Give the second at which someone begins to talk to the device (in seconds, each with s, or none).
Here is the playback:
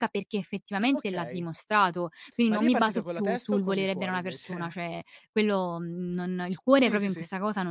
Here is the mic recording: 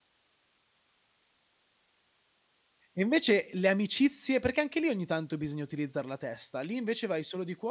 2.9 s